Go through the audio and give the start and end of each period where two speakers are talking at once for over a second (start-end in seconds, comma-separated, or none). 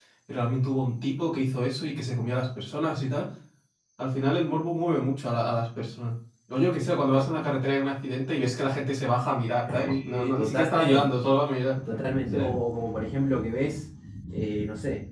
9.6-11.0